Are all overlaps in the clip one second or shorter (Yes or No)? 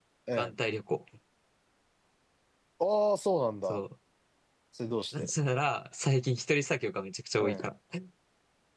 Yes